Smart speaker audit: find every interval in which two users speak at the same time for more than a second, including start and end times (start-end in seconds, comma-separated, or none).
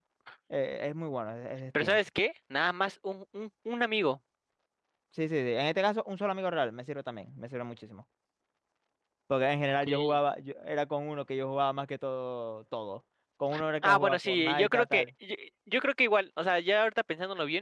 13.8-15.1